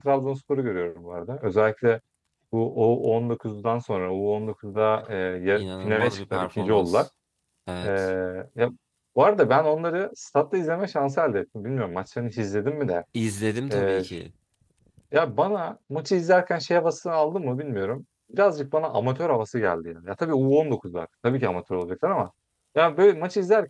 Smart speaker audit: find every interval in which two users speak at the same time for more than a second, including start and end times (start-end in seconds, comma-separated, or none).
5.5-7.0